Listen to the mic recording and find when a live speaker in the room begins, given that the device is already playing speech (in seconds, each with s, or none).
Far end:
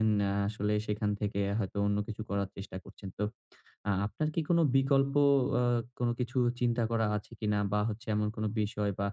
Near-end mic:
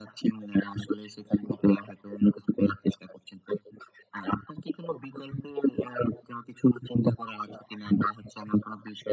none